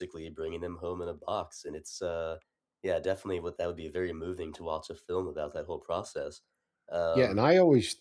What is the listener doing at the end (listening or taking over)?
taking over